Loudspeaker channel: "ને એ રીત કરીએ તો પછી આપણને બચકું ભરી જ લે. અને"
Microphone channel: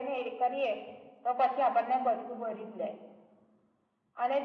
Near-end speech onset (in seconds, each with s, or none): none